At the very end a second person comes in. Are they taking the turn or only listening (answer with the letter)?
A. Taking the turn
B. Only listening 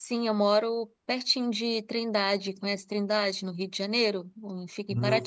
A